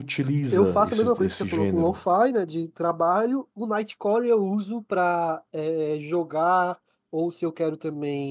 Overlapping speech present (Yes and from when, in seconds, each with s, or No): Yes, from 0.5 s